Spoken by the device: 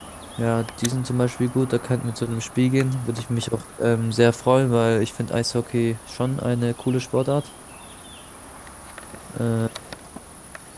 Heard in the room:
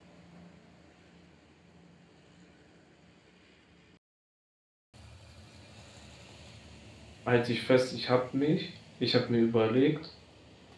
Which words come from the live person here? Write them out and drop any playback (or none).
halt dich fest, ich hab mich, ich hab mir überlegt,